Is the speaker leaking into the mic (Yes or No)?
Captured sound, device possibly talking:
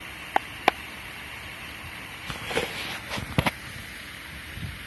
No